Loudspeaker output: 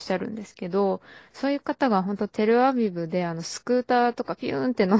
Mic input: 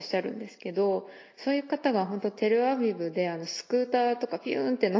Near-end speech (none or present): none